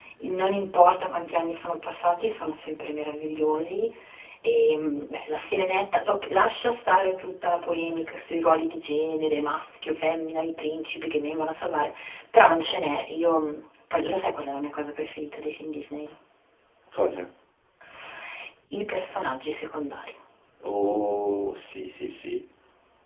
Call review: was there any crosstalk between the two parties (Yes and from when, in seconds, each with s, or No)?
No